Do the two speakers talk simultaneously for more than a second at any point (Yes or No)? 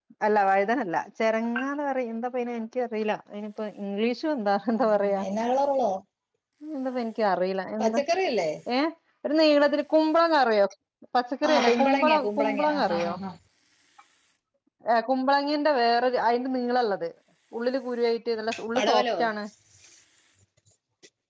Yes